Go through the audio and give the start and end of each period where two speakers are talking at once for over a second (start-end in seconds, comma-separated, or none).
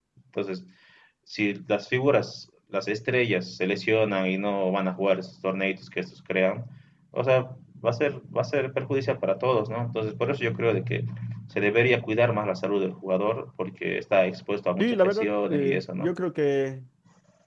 14.8-16.1